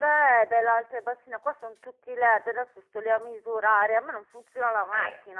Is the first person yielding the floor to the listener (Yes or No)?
Yes